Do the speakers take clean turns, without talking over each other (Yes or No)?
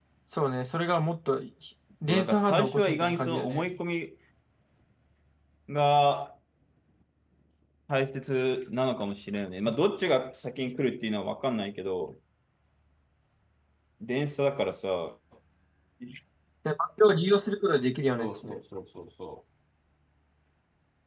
No